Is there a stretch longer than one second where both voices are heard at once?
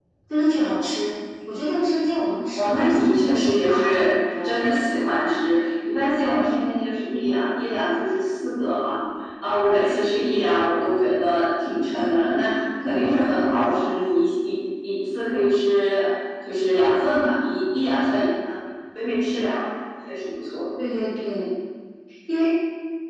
Yes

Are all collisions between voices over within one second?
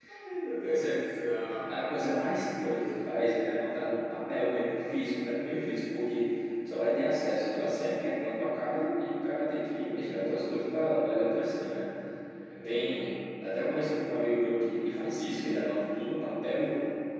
Yes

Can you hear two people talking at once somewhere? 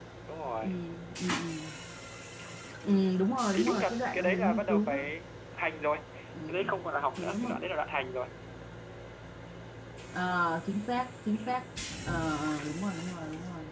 Yes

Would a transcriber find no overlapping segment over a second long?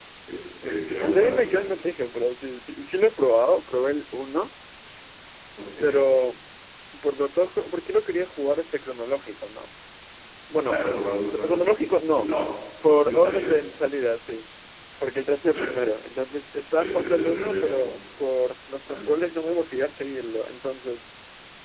No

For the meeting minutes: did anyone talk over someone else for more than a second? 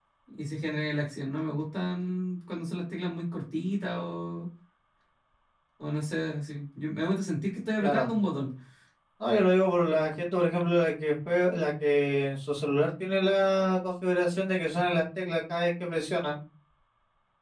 No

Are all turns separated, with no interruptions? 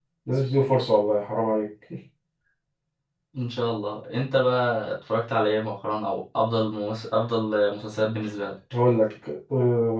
Yes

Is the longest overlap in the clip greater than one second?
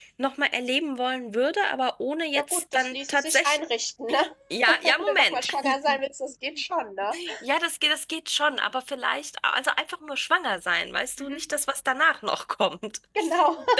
Yes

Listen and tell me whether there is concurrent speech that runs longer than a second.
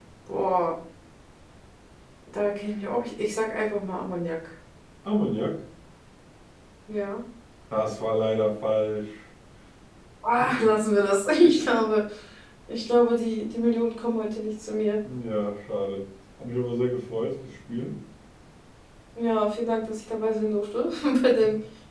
No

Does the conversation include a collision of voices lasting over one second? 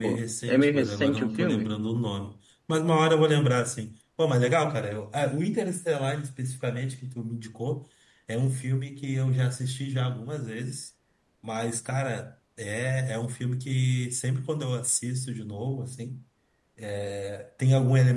Yes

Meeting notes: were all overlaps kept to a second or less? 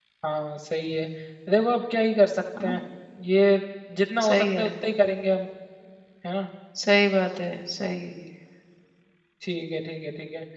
Yes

